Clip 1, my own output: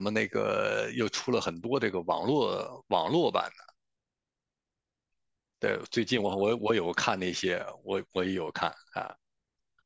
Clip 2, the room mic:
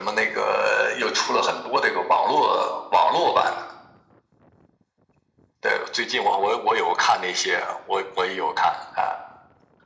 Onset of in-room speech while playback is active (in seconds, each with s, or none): none